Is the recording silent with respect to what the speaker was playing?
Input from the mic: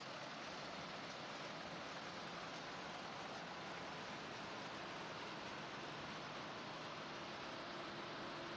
Yes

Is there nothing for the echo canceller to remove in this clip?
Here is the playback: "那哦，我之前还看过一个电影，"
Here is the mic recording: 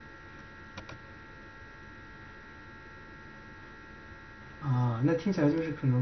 Yes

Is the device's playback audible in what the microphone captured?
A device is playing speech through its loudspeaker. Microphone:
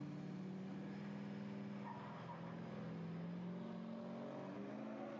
No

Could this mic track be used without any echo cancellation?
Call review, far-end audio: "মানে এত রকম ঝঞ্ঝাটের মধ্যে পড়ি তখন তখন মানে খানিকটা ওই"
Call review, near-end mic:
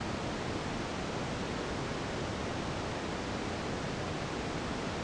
Yes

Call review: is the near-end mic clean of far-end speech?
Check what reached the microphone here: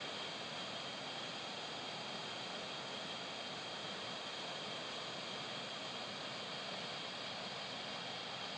Yes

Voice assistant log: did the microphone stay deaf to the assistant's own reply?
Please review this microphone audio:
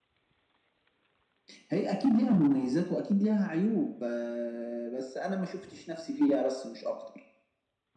No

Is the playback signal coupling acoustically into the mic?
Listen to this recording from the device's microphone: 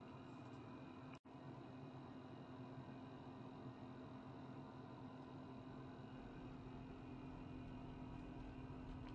No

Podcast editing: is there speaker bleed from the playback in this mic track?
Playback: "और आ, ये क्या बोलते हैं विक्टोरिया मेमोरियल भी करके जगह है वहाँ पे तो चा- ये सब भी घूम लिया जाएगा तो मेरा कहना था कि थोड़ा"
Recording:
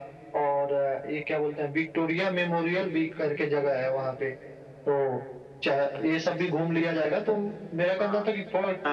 Yes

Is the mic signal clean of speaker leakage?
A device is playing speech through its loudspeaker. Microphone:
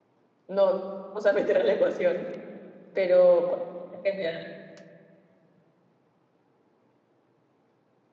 Yes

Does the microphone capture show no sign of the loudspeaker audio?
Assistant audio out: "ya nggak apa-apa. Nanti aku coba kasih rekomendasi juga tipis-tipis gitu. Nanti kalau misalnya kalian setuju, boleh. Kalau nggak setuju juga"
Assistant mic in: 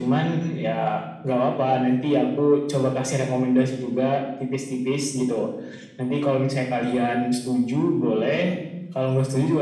No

